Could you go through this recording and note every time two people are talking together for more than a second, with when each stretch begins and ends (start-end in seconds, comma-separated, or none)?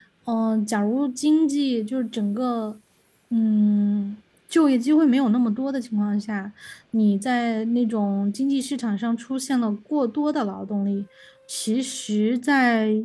none